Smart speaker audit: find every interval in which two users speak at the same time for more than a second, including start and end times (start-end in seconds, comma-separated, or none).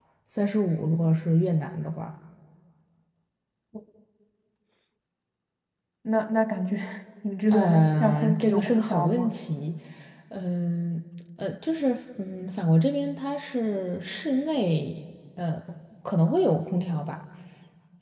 7.5-9.4